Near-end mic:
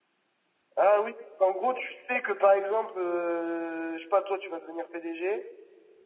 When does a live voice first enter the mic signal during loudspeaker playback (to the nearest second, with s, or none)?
none